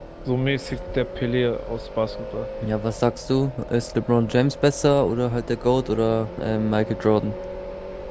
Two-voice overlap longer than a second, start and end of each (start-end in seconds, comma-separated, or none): none